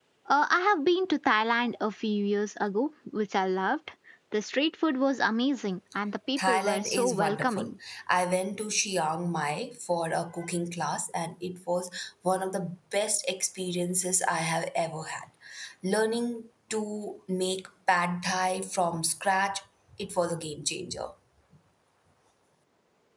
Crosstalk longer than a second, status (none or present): present